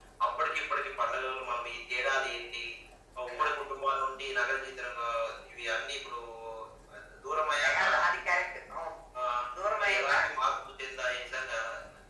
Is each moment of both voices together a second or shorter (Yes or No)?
Yes